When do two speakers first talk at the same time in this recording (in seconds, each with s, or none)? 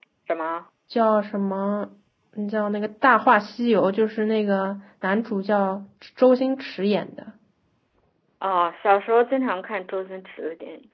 none